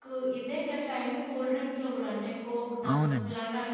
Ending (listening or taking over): listening